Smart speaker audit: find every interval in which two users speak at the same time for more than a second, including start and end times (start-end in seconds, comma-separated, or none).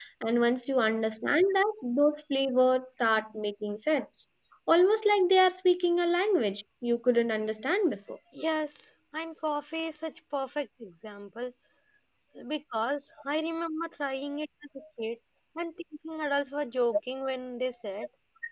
none